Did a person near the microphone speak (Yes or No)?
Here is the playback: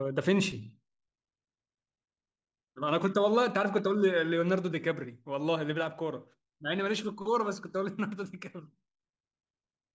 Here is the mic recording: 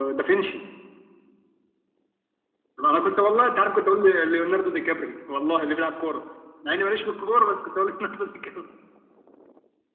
No